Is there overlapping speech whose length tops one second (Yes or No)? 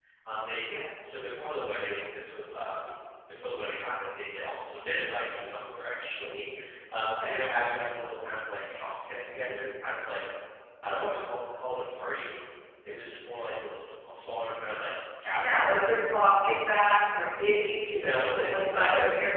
Yes